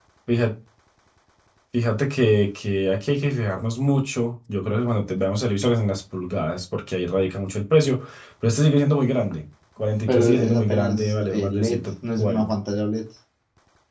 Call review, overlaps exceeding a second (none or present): present